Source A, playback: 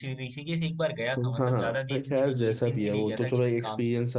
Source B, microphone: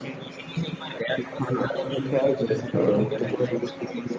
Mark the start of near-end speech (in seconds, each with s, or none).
2.7 s